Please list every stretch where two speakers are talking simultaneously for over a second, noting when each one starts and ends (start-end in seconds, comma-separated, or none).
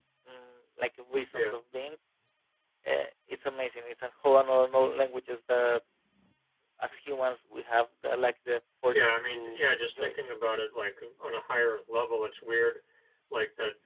8.9-10.1